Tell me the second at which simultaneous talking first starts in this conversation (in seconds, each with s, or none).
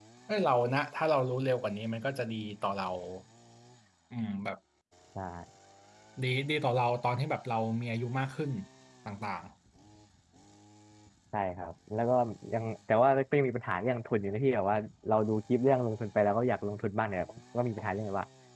none